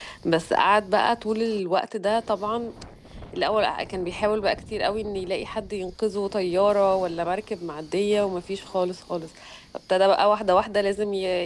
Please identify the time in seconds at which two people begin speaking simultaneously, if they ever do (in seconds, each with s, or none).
none